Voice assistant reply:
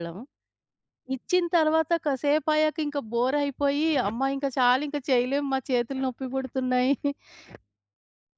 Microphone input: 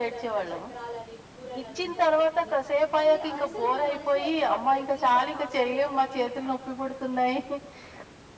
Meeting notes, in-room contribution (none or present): present